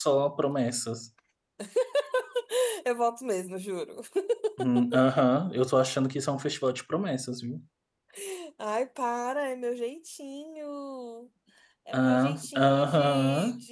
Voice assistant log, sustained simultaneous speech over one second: present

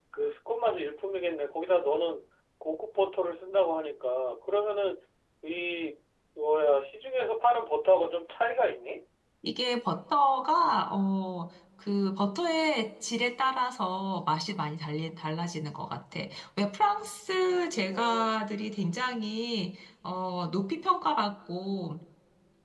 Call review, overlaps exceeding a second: none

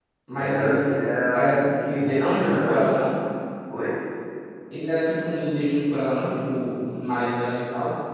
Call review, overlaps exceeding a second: present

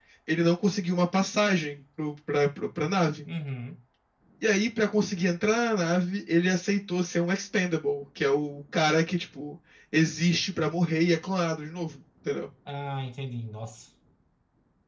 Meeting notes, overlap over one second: none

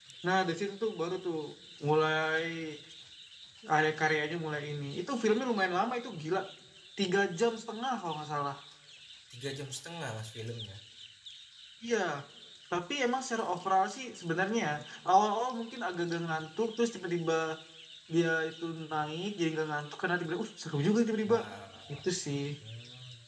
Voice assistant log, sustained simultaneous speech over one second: none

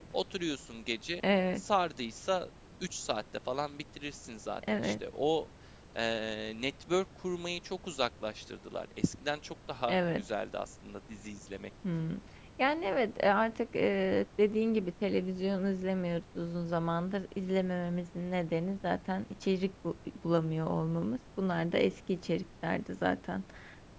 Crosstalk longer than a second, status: none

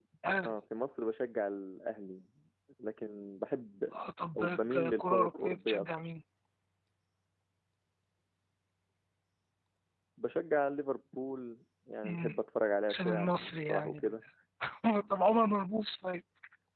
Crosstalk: present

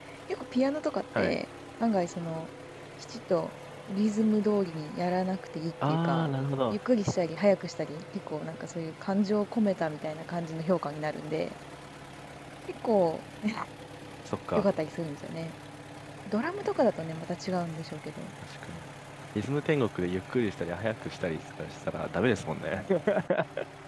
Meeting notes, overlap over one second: none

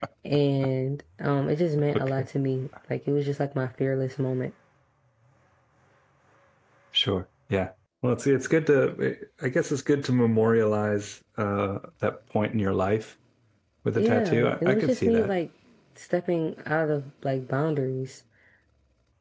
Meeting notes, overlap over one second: present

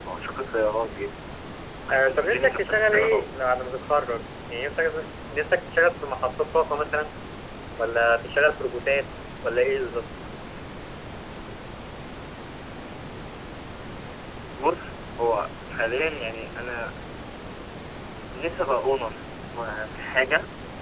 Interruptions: present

